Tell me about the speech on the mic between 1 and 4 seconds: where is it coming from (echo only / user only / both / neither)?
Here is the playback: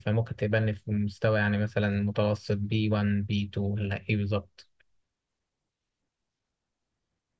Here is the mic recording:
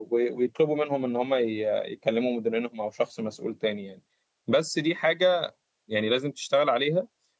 user only